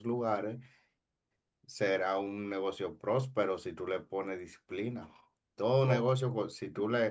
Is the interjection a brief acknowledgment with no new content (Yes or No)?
Yes